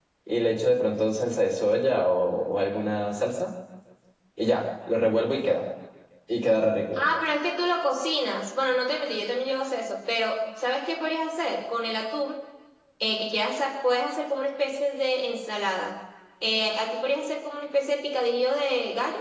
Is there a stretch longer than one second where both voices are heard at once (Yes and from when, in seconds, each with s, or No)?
No